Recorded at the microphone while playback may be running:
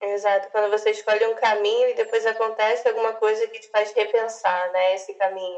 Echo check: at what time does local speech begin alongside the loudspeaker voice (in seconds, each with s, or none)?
none